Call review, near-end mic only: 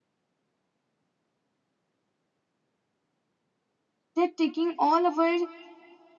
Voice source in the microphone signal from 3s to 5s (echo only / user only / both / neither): user only